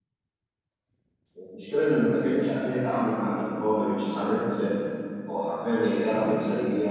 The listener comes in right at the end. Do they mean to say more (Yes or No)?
No